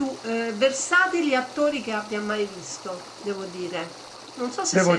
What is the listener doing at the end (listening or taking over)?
taking over